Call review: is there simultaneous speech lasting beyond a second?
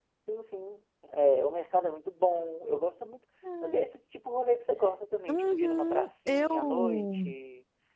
Yes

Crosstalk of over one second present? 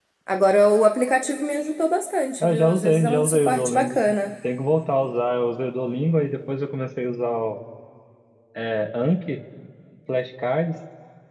Yes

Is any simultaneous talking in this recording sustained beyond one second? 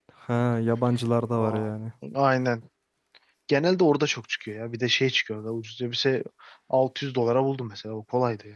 No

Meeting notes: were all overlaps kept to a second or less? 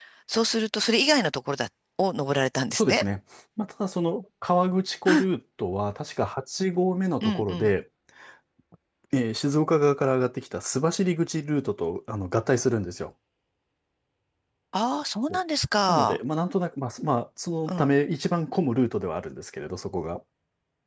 Yes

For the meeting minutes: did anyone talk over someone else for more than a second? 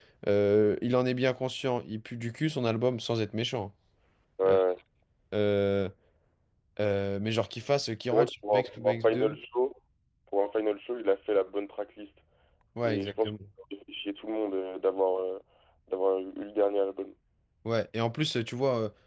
Yes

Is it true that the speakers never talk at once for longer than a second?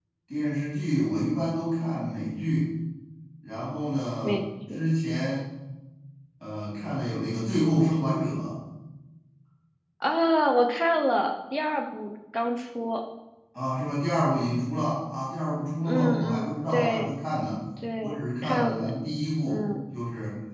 No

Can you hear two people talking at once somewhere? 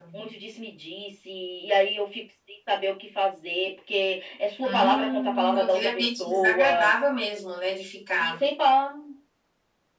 Yes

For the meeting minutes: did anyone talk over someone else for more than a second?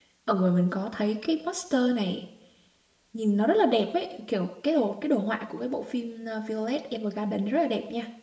No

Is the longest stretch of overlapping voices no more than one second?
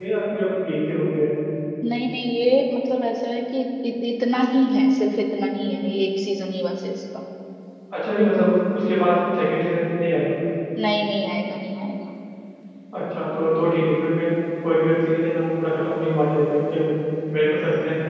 Yes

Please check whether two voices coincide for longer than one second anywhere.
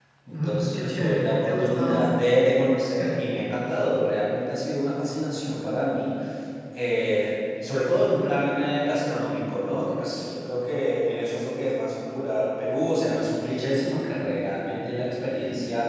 Yes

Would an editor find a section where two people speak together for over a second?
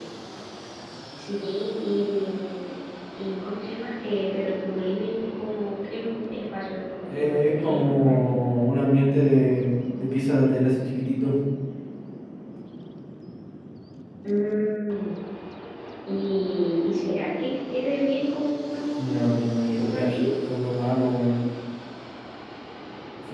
Yes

